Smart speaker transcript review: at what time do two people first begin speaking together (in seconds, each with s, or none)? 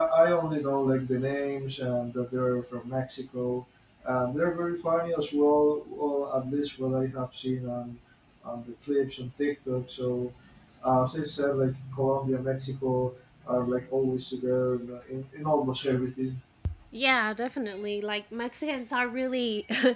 none